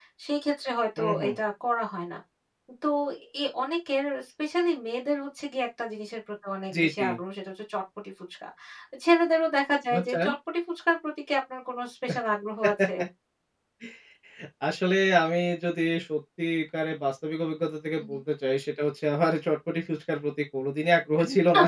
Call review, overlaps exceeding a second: none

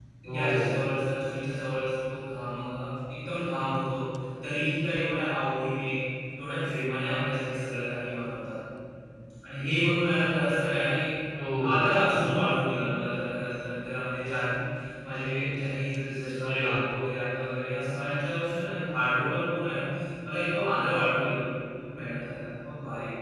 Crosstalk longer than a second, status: none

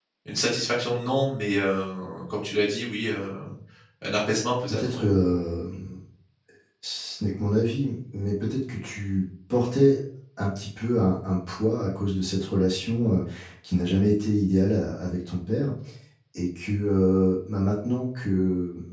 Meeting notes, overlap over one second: none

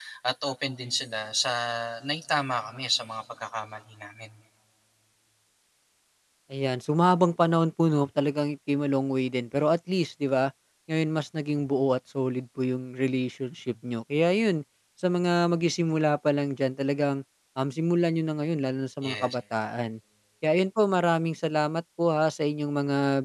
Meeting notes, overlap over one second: none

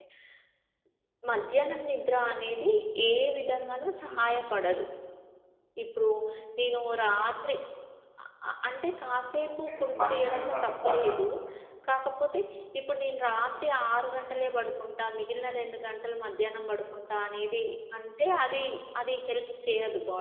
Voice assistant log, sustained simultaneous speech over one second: present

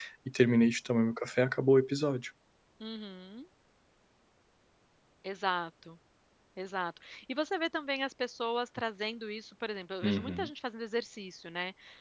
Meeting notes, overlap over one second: none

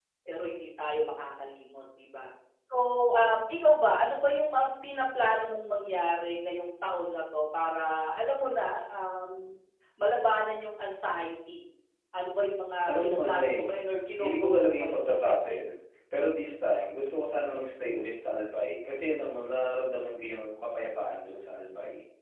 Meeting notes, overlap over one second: present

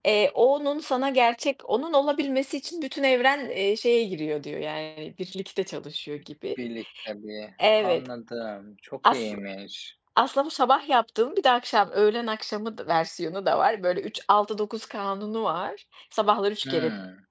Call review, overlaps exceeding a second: none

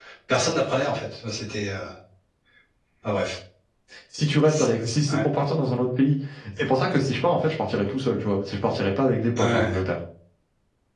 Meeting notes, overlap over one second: none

